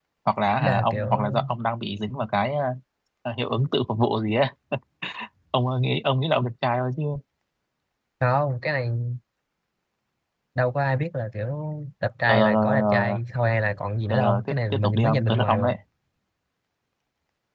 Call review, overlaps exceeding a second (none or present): present